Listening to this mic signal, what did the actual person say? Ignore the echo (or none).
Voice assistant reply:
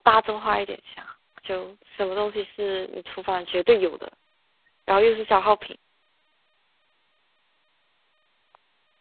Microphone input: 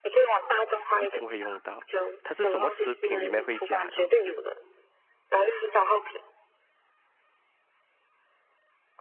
一定会用到，它是什么食品里面会加的吗？